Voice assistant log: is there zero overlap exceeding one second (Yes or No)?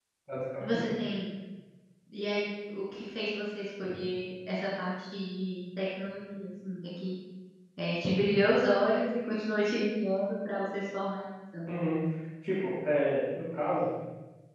Yes